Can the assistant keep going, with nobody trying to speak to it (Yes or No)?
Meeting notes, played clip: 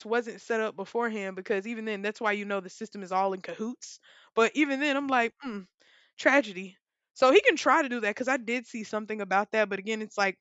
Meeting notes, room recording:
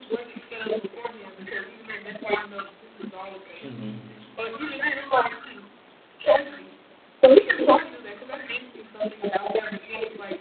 No